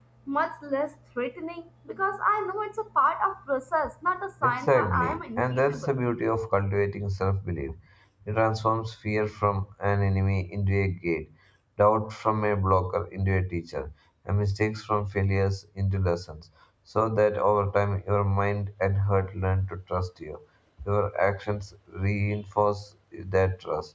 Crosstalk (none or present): present